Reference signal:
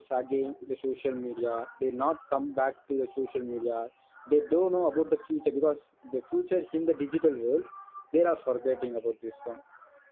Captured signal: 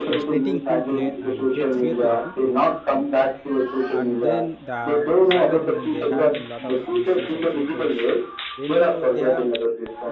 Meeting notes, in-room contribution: present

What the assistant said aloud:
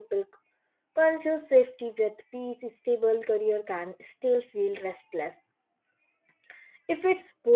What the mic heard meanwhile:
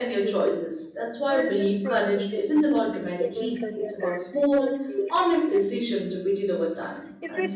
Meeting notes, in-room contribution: present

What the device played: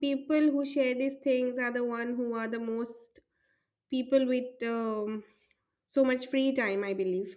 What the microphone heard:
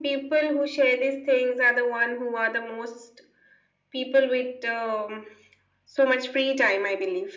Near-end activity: none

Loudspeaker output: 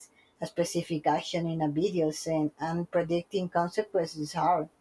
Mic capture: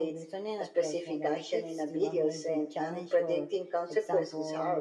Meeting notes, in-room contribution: present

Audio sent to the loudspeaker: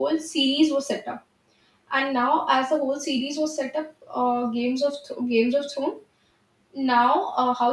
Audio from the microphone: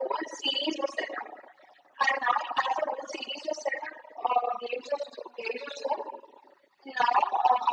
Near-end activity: none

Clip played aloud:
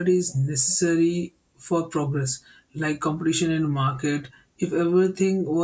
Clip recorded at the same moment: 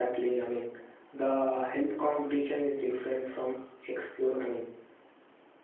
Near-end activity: present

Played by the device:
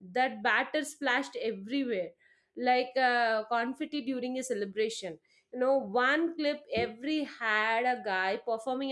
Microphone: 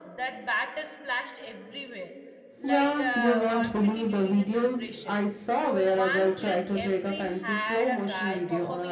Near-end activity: present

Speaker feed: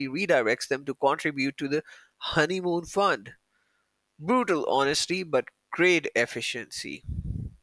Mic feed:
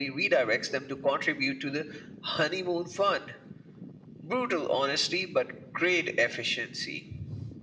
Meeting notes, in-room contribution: none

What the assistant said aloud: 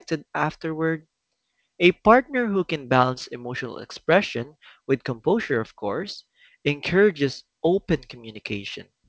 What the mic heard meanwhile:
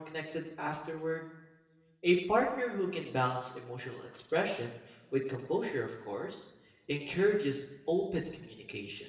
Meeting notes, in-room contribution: none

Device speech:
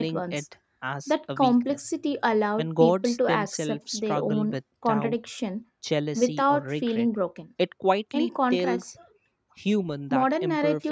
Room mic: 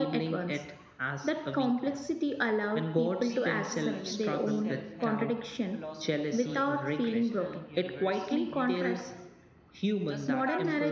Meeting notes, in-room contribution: present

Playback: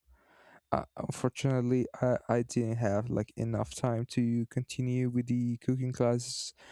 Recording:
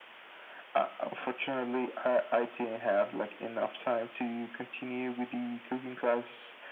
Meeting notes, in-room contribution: none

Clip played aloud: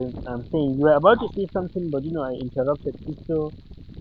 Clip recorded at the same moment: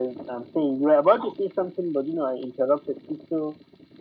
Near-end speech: none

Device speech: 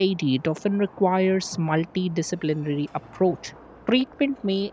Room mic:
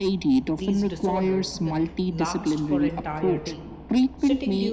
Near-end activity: present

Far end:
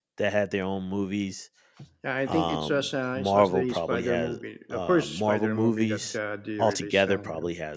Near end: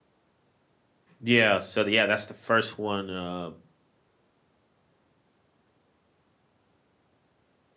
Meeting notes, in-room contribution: present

